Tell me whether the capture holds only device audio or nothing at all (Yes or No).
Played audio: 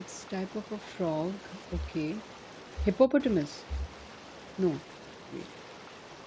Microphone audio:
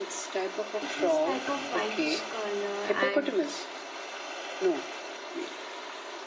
No